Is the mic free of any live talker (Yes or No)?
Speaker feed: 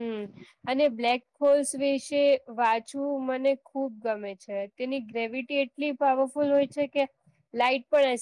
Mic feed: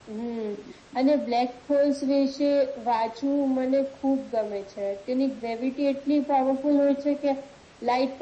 Yes